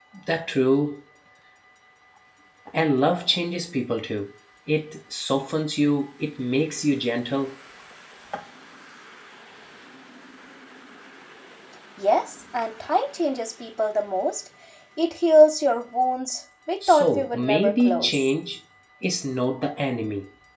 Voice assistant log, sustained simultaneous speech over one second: present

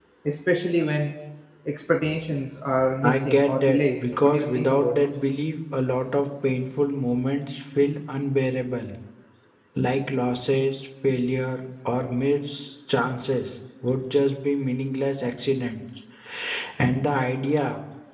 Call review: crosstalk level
present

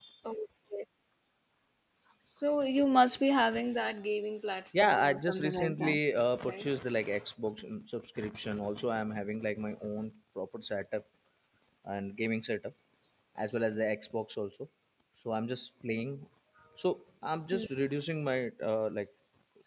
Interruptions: present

